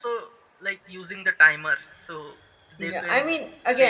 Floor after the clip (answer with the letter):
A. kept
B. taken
B